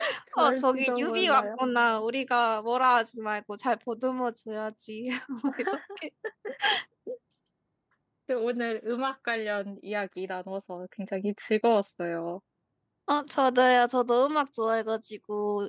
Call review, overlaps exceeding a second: present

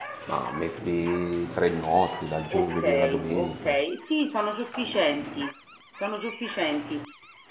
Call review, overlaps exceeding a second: present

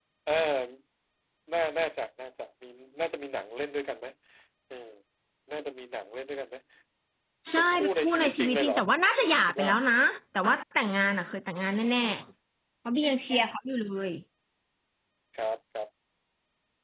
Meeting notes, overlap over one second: present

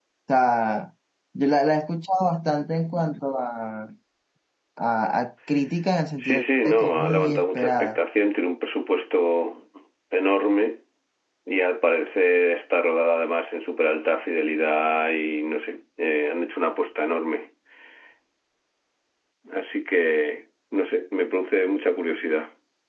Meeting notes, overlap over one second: present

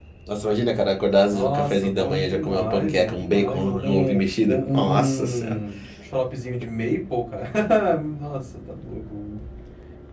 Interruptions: present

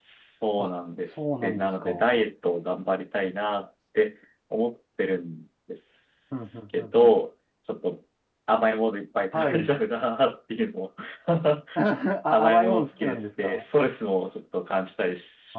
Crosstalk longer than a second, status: present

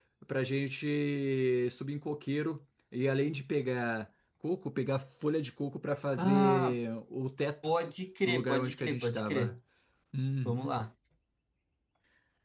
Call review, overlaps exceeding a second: present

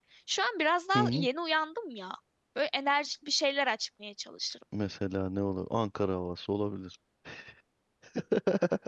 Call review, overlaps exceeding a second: none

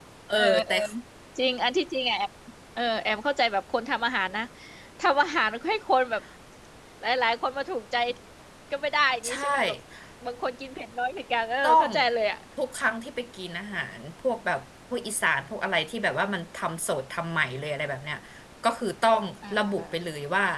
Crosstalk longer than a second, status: none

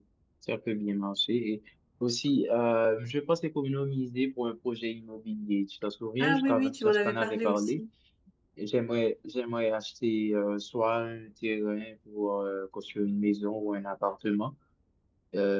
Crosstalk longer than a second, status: present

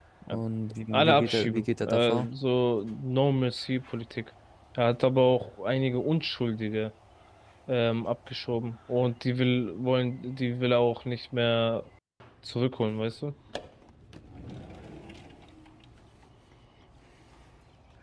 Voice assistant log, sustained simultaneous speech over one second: present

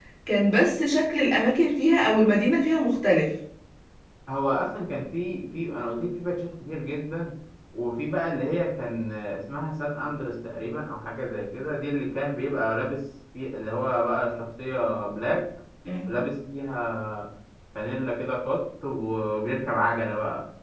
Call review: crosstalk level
none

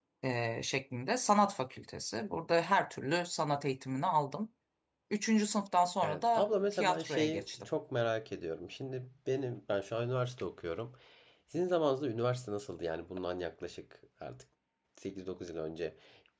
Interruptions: present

